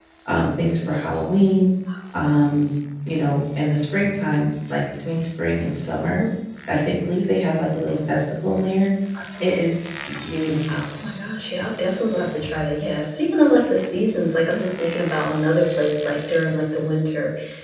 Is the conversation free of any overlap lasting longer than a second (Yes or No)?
Yes